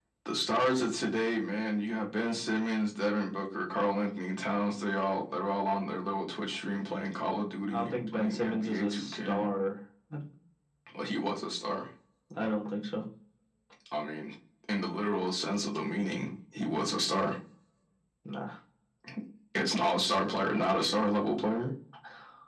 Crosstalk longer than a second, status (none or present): present